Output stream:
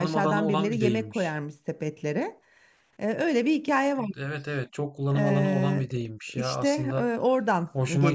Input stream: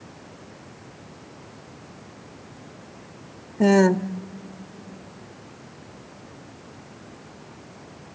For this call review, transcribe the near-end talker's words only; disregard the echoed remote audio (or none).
He,